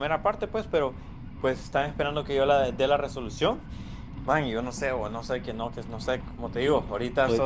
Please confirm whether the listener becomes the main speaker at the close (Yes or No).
No